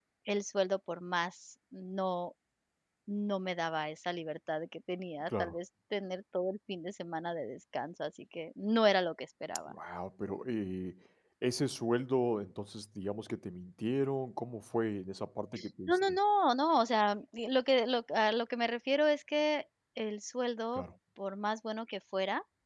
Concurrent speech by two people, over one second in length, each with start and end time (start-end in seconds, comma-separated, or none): none